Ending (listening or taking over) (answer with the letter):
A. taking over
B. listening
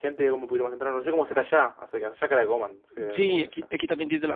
A